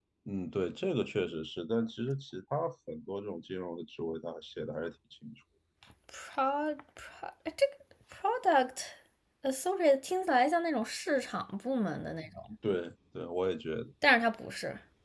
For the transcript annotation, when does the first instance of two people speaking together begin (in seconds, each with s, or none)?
none